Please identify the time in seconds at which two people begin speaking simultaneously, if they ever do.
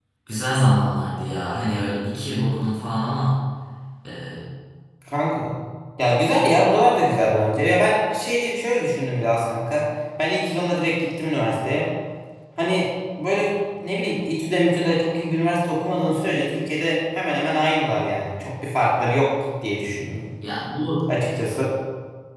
none

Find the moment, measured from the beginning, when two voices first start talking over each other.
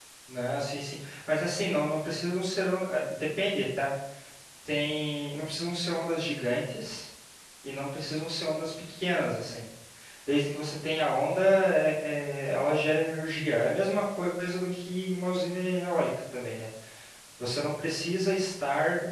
none

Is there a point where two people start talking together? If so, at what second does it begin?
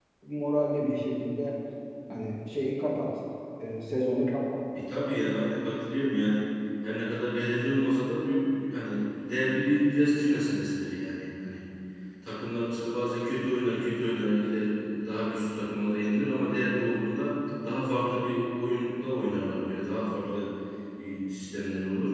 none

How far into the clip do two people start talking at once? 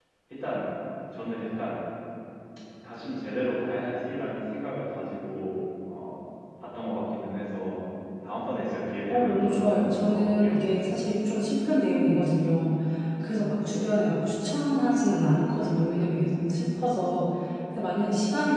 9.1 s

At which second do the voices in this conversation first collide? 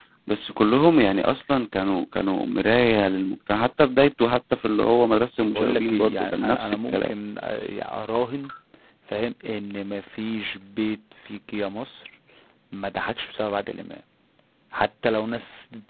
5.4 s

